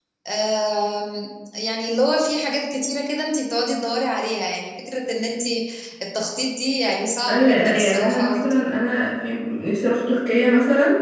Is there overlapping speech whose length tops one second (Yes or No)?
Yes